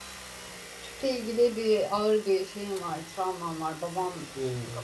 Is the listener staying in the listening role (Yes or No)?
Yes